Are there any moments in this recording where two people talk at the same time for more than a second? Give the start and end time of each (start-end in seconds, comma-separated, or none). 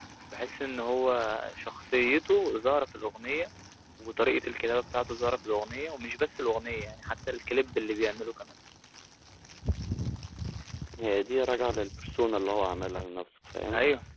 none